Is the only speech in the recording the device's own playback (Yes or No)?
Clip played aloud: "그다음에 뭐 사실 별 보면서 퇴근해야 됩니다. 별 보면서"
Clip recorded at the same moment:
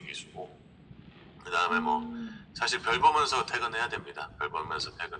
No